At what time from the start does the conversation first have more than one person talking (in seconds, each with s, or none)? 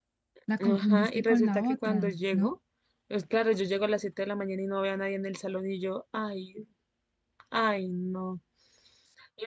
0.6 s